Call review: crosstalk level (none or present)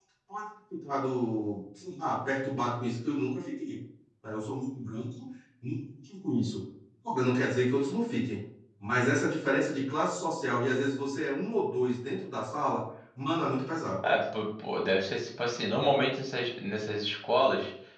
none